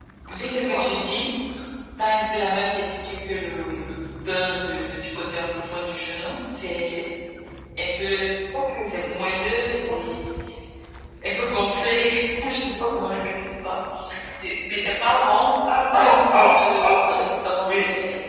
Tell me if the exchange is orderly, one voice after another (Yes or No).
No